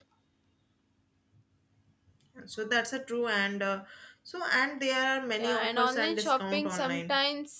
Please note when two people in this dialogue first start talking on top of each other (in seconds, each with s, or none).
5.4 s